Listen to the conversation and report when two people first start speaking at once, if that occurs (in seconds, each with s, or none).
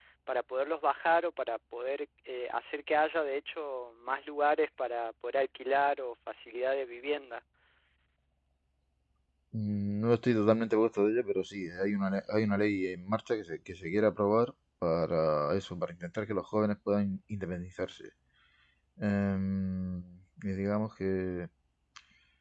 none